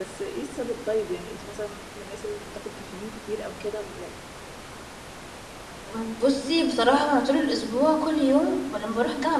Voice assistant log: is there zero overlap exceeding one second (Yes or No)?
Yes